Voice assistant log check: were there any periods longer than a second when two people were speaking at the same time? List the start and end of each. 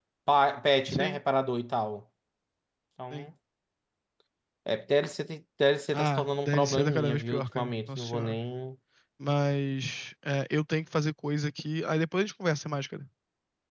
5.9-8.4

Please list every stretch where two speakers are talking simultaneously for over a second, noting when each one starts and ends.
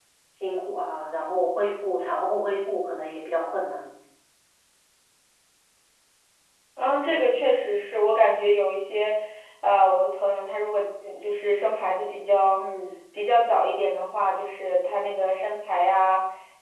none

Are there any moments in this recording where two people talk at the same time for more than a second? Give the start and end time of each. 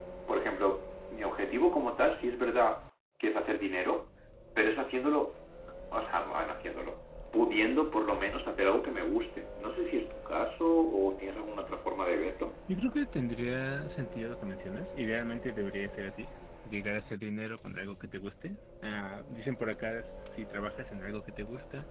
none

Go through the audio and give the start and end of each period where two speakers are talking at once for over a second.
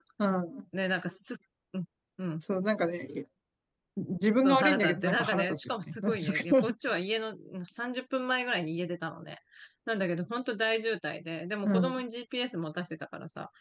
4.3-6.7

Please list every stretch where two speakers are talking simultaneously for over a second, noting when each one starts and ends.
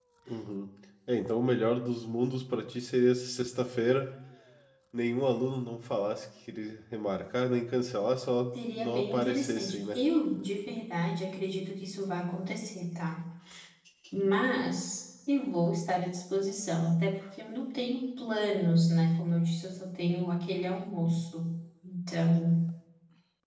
8.8-10.0

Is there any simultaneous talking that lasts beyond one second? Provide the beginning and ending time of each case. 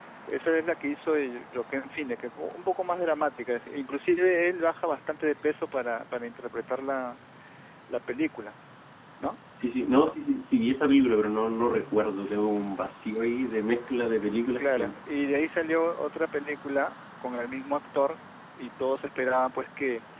none

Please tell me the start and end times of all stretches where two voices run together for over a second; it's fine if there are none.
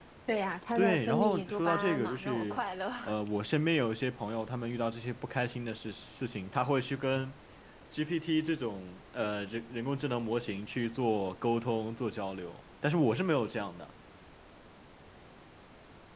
0.8-2.6

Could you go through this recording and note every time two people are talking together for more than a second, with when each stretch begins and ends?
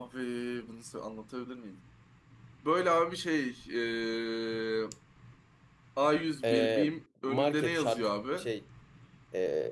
7.2-8.5

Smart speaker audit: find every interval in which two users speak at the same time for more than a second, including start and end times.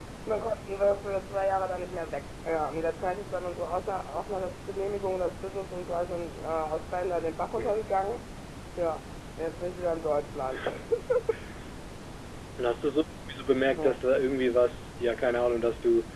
none

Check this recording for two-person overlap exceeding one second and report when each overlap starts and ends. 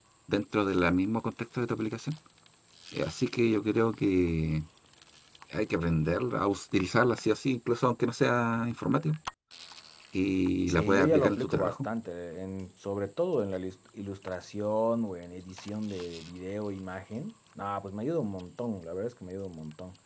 10.7-11.9

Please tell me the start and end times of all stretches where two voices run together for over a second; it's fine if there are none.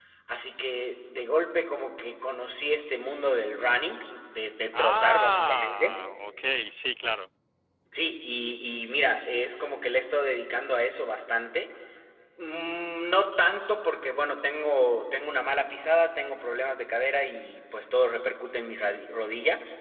4.7-6.1

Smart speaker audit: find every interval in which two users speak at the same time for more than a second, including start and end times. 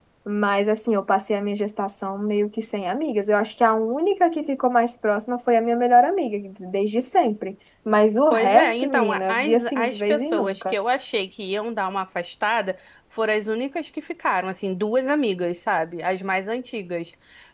8.3-10.7

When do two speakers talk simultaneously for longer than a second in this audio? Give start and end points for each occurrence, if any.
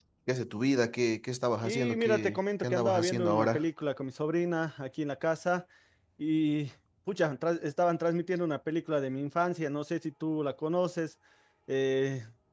1.6-3.6

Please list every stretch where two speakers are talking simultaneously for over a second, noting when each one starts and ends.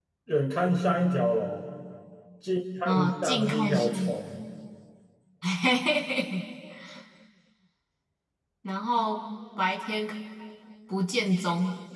2.9-4.1

